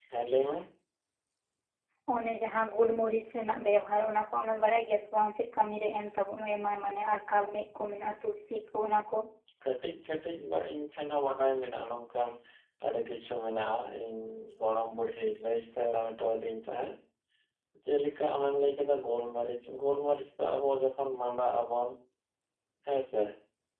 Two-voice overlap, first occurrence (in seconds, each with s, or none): none